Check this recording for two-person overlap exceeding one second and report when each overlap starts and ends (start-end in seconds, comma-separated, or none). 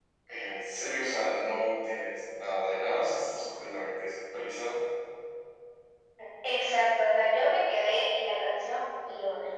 none